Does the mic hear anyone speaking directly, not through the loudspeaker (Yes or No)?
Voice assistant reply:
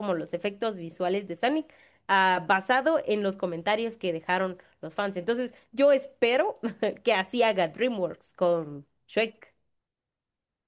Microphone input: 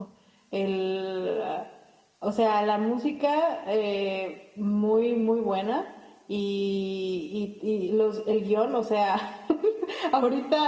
Yes